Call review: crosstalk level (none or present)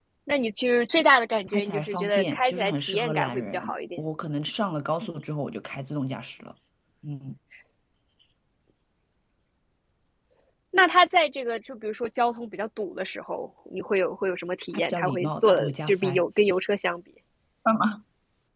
present